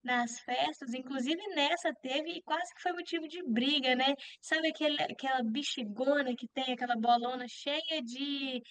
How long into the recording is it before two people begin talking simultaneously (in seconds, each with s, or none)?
none